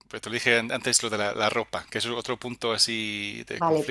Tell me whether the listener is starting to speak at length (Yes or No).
Yes